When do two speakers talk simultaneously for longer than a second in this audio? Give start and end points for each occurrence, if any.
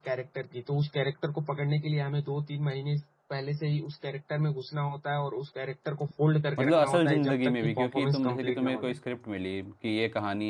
6.6-9.0

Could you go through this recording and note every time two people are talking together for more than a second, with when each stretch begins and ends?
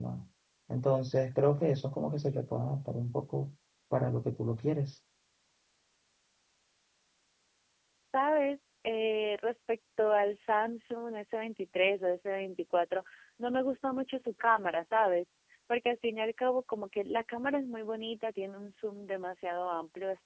none

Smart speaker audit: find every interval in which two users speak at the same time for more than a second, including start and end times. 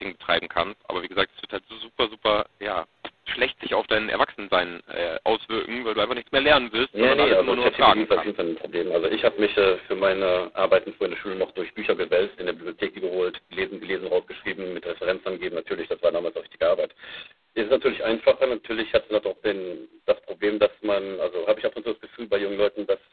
6.9-8.3

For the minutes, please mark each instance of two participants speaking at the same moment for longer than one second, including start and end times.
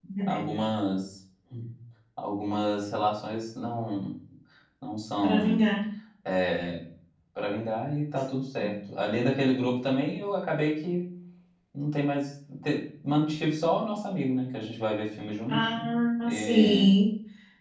15.5-16.9

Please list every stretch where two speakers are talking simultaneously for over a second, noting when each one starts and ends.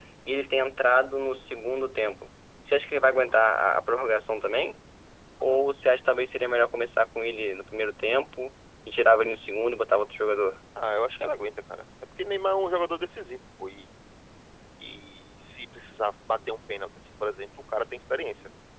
none

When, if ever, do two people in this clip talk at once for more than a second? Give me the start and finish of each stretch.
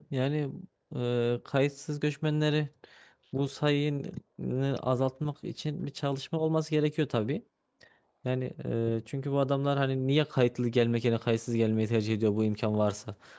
none

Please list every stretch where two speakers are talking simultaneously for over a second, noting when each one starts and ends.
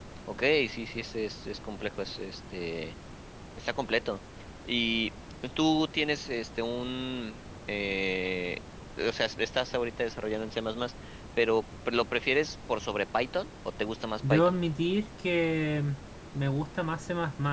none

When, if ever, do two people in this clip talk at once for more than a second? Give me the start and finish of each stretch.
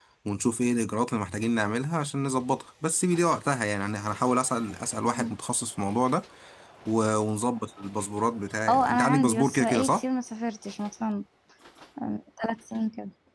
8.7-10.0

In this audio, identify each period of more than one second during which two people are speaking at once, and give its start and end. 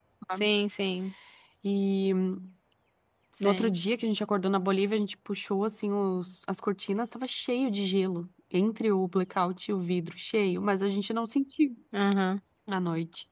none

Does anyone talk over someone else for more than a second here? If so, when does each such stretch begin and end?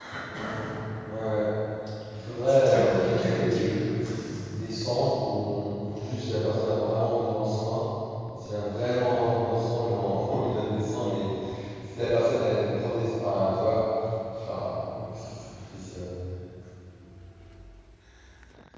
2.4-3.8

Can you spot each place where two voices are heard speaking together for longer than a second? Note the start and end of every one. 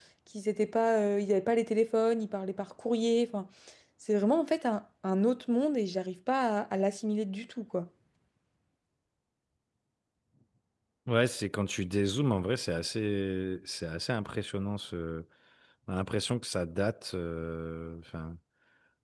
none

